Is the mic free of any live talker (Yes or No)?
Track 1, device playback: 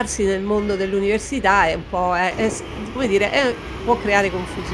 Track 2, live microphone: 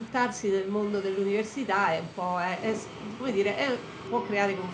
Yes